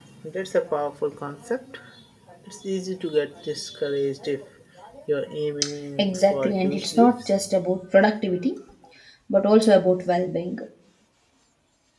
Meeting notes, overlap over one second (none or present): present